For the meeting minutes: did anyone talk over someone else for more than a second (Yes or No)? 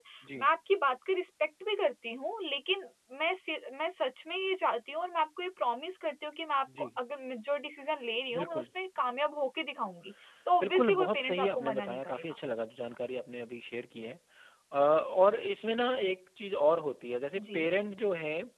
Yes